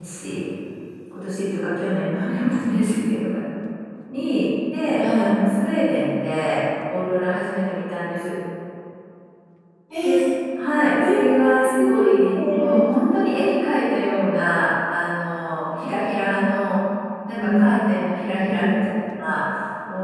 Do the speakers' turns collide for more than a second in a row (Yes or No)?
Yes